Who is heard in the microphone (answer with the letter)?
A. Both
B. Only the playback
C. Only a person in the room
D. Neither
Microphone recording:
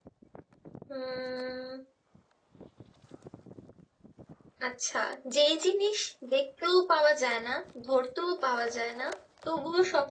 C